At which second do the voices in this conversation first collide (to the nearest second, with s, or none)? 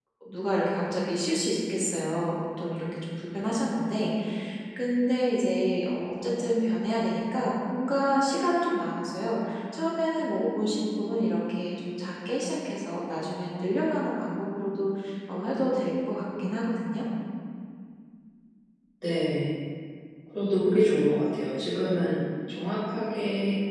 none